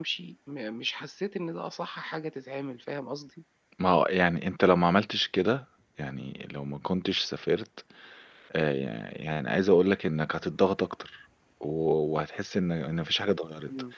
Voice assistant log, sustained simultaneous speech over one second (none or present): none